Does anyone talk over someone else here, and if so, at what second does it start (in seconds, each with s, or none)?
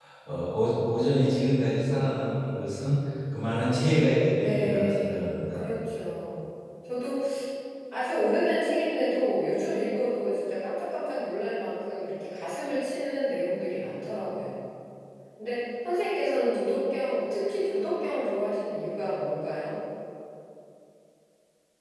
4.4 s